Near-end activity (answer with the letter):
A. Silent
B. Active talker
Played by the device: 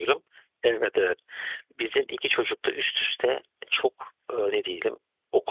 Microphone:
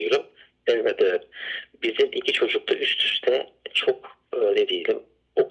A